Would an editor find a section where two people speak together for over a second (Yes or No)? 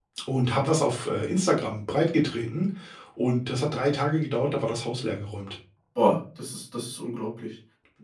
No